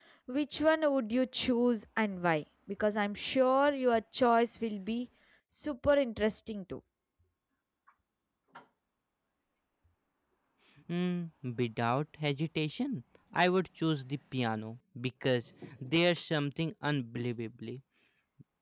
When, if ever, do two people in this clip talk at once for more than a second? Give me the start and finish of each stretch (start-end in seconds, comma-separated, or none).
none